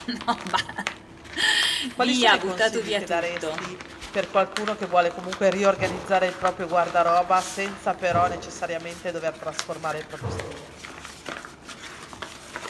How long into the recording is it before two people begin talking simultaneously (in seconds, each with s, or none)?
2.0 s